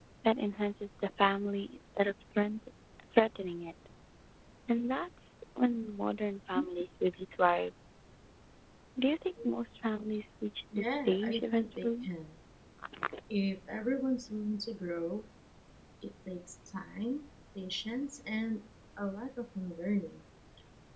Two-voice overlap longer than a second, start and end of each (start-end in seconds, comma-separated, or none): 10.8-12.1